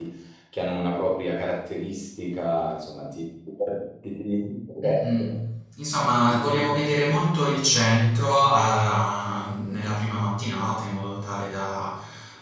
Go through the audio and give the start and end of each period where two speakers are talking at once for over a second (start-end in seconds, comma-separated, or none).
none